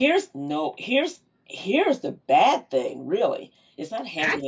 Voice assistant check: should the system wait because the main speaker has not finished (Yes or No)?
No